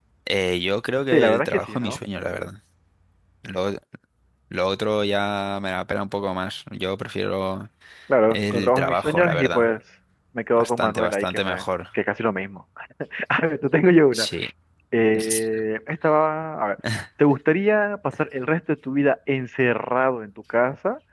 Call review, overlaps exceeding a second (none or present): present